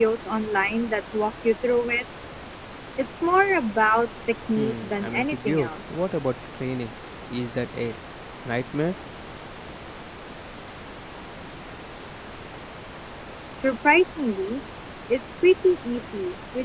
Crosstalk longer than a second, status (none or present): present